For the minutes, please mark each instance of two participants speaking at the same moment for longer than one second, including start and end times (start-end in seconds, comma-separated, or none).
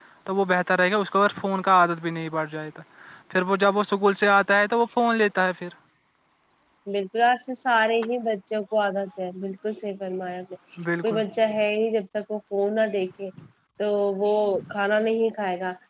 none